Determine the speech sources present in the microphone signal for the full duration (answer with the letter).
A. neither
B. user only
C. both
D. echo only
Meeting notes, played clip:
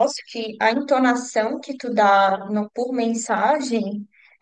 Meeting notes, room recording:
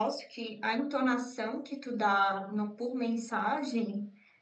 D